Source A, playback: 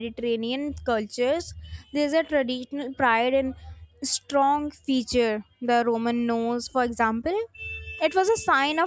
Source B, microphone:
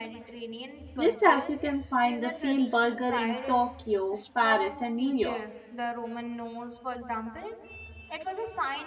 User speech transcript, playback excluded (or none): Just as you can find the same burger in Tokyo, Paris, and New York,